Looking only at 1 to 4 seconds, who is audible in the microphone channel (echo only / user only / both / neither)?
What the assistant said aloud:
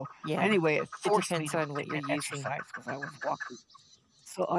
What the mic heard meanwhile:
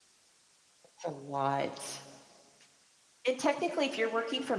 user only